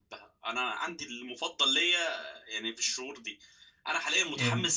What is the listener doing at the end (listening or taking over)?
listening